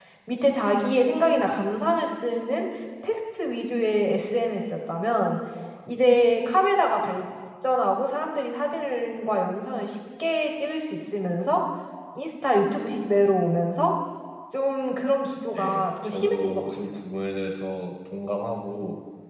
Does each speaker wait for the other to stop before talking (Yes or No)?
No